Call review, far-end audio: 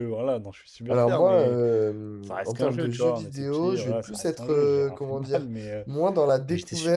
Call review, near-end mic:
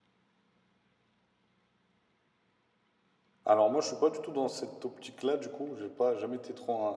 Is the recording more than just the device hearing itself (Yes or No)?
Yes